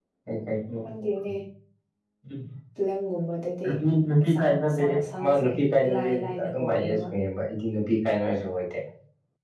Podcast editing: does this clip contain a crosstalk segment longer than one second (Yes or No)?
Yes